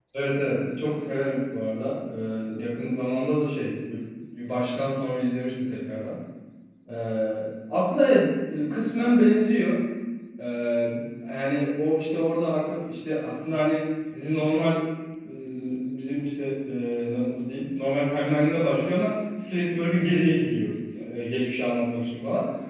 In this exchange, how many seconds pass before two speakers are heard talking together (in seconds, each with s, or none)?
none